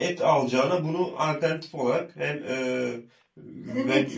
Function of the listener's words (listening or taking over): taking over